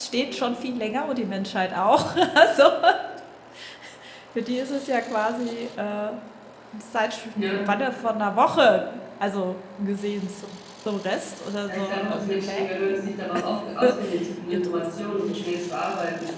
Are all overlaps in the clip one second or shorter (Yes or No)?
No